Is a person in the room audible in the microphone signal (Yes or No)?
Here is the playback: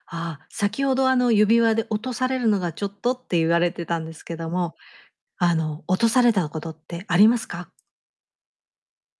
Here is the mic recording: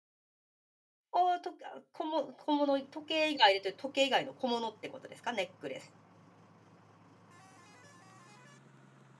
Yes